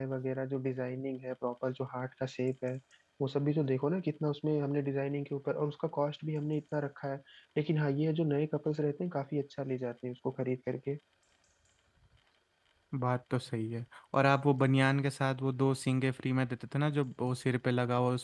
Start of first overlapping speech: none

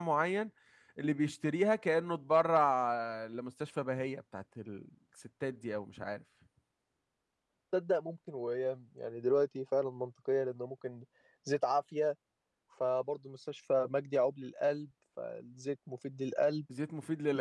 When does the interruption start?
none

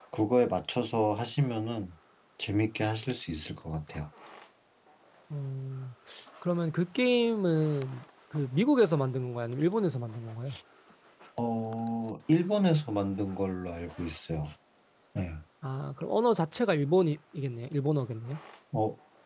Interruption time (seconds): none

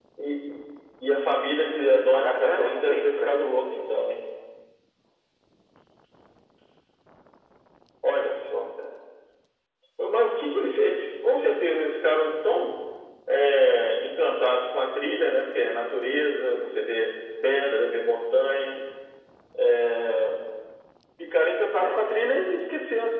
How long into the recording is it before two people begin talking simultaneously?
1.8 s

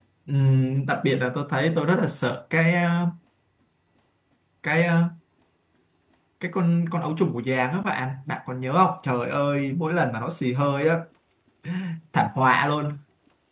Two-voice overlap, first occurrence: none

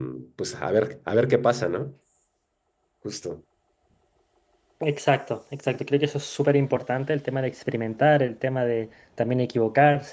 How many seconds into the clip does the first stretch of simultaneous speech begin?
none

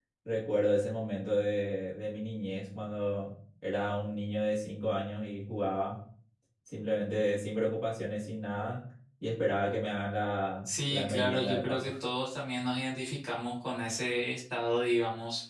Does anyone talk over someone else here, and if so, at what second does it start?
10.7 s

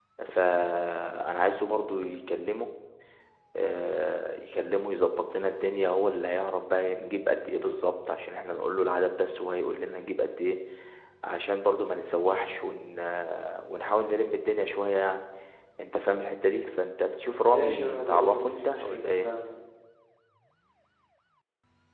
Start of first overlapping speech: 17.5 s

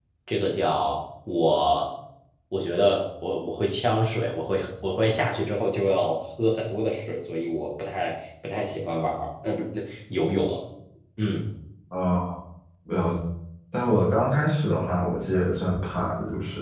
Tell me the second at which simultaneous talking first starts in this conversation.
none

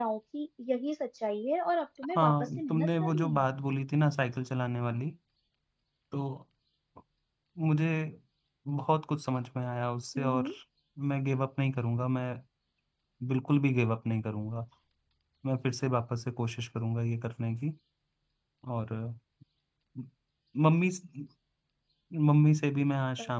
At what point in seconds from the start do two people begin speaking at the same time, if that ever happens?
2.1 s

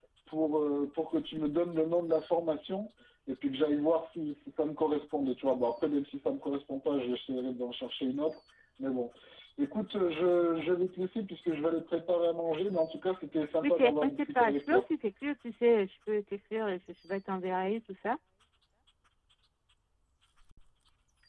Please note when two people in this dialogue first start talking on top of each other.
13.6 s

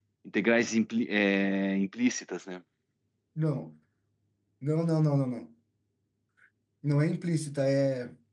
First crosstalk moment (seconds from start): none

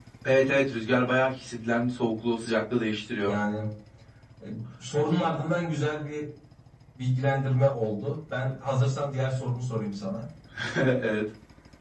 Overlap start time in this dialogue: none

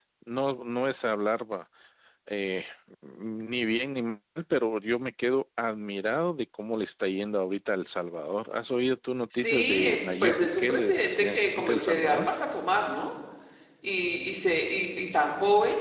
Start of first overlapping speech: 9.3 s

